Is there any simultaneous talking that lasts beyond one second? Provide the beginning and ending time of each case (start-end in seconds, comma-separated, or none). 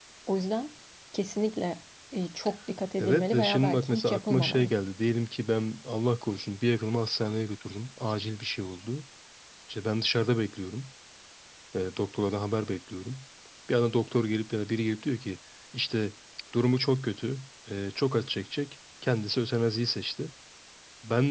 3.0-4.7